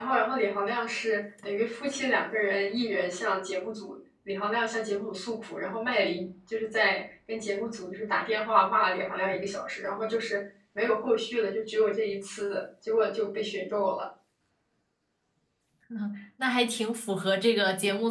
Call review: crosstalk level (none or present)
none